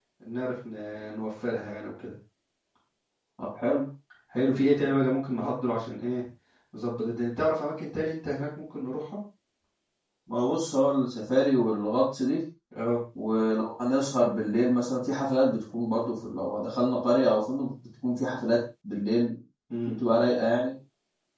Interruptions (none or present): none